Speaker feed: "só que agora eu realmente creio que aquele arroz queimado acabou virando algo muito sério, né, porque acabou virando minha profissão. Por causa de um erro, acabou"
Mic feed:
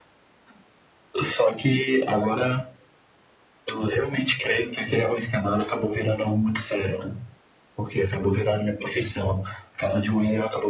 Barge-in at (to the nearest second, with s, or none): none